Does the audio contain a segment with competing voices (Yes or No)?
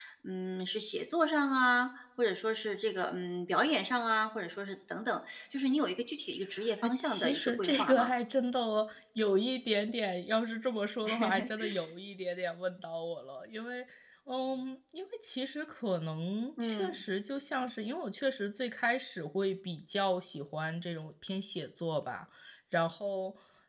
Yes